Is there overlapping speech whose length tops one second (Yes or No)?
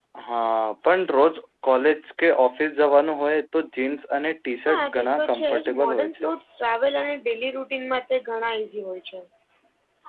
Yes